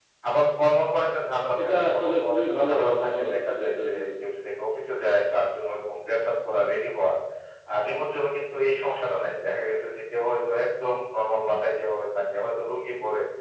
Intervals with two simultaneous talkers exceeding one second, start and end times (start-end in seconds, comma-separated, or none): 1.6-4.0